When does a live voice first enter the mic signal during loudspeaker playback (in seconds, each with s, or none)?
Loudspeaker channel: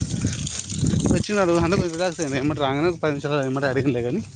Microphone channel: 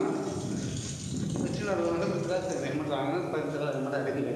none